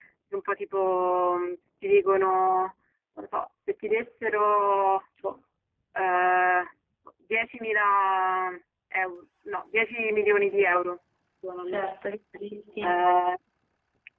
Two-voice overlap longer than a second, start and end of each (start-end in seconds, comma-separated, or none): none